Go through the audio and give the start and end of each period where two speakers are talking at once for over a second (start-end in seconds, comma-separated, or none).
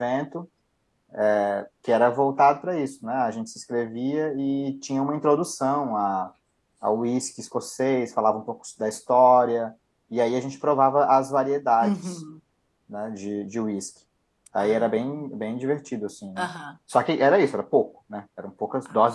none